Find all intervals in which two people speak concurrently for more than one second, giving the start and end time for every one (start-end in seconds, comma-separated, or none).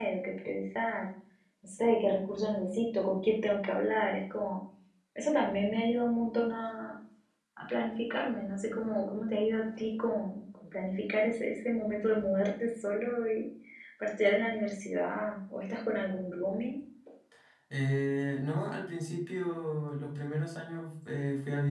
none